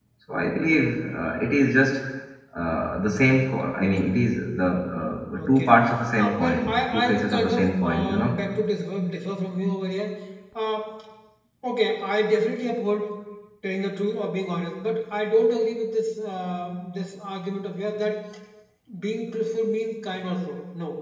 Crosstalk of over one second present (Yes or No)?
Yes